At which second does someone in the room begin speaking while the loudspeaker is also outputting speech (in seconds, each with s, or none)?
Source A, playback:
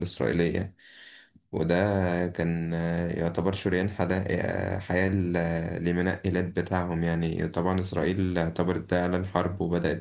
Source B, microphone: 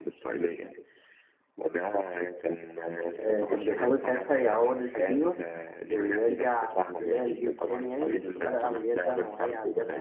3.2 s